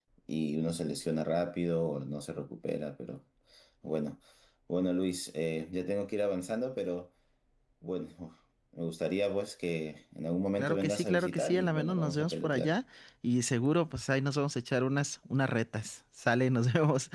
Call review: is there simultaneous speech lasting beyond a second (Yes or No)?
Yes